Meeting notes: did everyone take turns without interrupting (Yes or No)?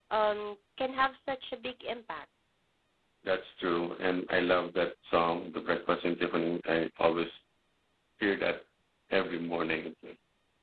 Yes